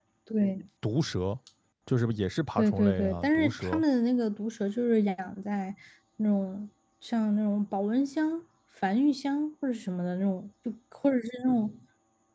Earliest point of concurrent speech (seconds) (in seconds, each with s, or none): 2.6 s